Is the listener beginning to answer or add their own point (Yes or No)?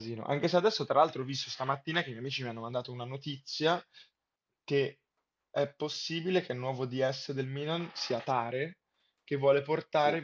No